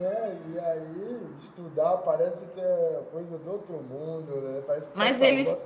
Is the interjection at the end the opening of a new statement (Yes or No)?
Yes